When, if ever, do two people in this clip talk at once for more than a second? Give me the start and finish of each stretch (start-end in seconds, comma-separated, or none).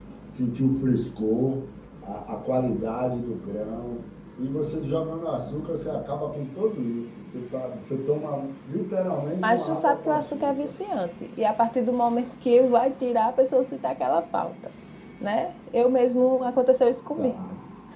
9.4-10.7